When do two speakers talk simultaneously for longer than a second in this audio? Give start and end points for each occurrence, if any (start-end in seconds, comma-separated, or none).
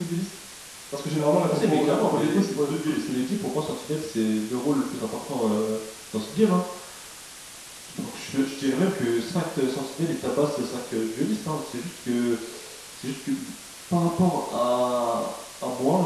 1.5-3.0